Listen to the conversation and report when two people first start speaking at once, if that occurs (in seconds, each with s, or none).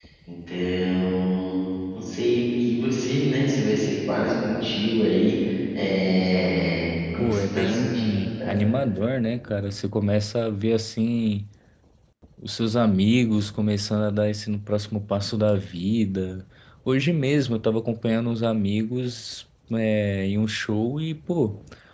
7.2 s